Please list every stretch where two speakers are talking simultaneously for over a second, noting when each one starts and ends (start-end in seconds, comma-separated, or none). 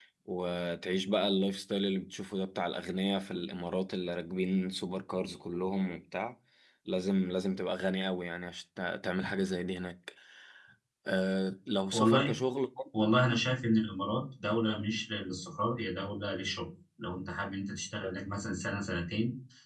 none